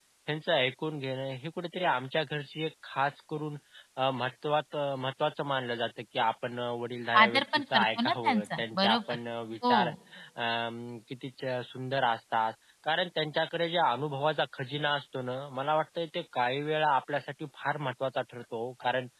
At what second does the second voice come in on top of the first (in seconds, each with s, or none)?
7.2 s